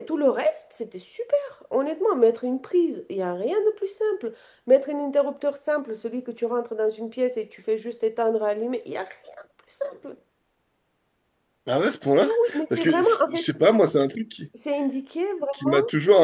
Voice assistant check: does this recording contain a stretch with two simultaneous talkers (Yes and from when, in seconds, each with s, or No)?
Yes, from 12.2 s